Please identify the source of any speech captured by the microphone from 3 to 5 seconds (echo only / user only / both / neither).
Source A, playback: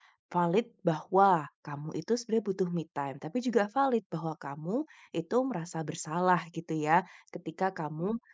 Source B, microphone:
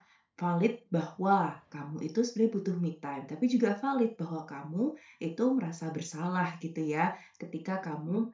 echo only